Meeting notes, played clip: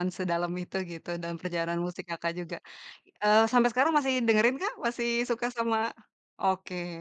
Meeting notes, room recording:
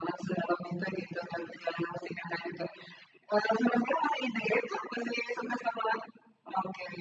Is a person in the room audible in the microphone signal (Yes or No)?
No